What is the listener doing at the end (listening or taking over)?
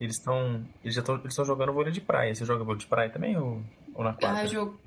taking over